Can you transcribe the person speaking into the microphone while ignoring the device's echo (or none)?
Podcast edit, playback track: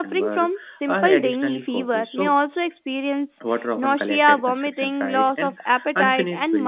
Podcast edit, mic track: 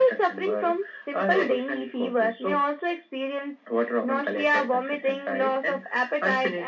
none